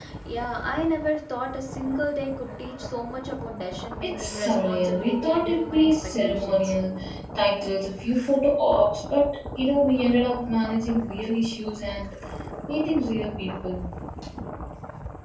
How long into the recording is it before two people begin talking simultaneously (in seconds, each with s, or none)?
4.0 s